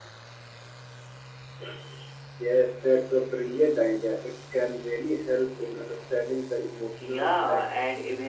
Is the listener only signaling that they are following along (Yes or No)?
No